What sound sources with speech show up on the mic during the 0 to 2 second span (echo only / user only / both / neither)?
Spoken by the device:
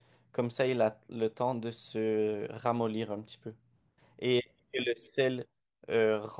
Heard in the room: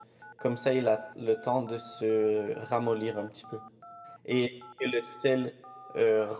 echo only